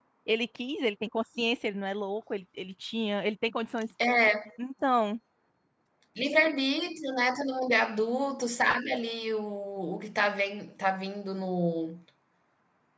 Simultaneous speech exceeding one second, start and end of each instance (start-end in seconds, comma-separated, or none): none